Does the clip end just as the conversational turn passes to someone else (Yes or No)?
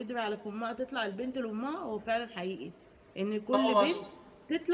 No